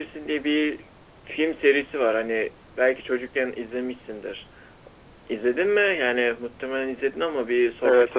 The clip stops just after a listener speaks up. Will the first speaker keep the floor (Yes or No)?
No